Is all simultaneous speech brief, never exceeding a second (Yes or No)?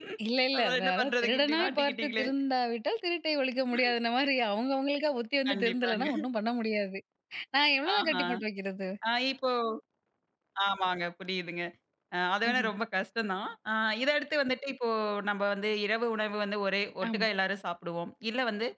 No